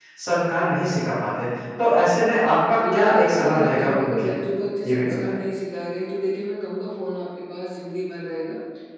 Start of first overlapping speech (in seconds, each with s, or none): 2.8 s